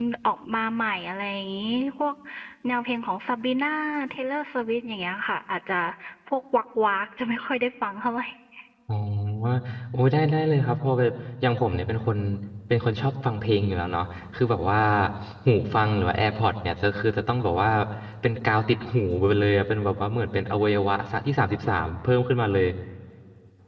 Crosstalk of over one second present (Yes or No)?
No